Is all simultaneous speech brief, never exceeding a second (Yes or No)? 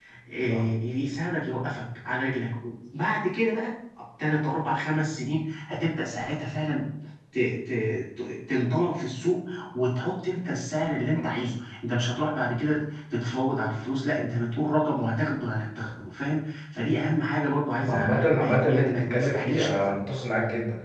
No